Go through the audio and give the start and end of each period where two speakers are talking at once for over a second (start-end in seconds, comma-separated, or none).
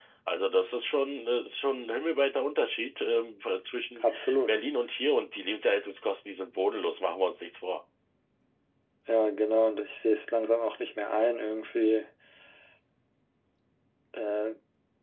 none